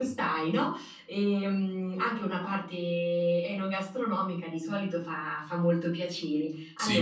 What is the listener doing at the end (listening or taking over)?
listening